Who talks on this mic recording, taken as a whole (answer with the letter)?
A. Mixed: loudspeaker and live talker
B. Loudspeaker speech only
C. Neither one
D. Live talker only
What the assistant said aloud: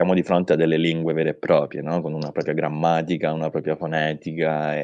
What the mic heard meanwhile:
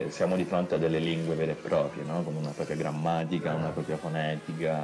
A